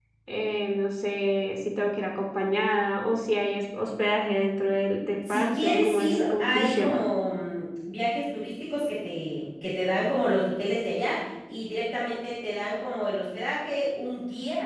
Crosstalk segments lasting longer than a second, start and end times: 5.3-7.0

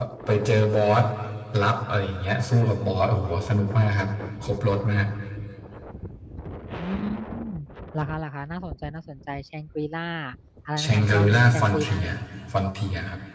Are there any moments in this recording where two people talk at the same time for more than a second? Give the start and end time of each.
10.8-12.0

